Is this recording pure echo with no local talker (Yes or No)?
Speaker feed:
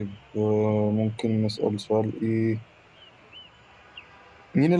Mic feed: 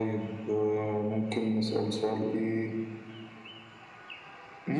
Yes